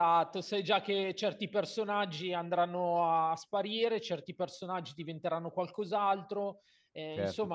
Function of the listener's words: taking over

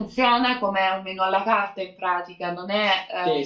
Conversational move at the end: taking over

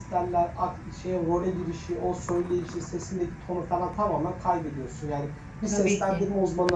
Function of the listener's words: listening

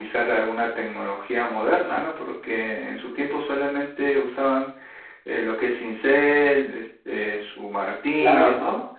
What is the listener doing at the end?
taking over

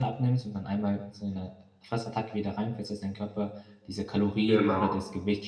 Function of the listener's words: listening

